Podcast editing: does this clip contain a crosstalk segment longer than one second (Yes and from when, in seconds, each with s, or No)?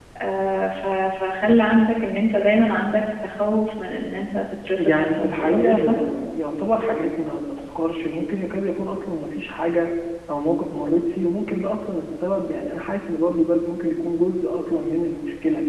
Yes, from 4.8 s